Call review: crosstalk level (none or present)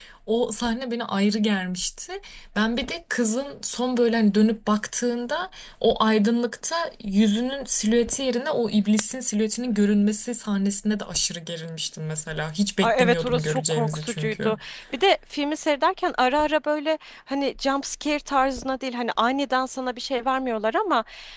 present